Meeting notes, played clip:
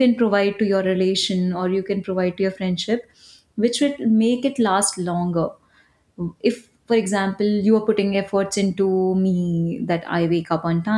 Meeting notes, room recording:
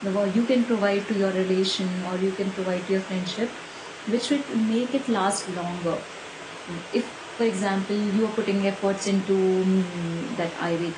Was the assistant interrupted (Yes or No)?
No